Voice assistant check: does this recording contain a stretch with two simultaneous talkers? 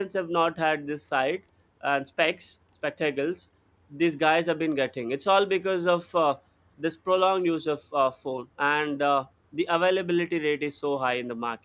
No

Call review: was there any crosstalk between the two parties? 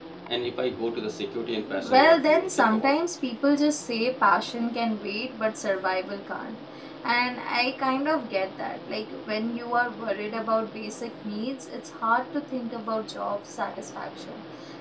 Yes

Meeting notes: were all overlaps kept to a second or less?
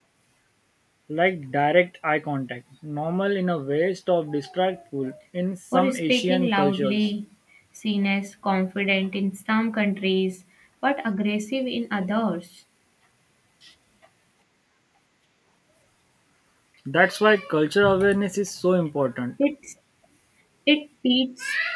No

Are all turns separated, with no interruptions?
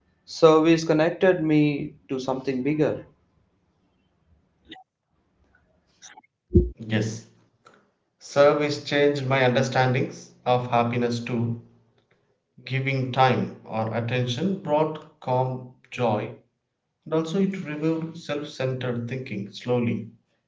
Yes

